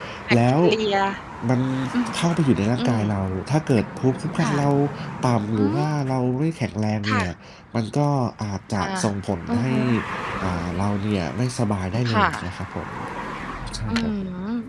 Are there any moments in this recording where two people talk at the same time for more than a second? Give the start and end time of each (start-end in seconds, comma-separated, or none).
none